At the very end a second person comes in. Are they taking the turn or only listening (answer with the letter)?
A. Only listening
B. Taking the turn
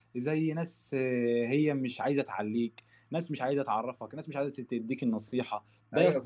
B